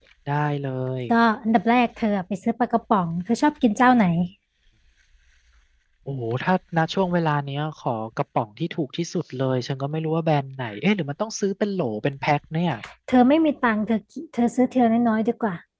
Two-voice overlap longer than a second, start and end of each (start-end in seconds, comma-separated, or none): none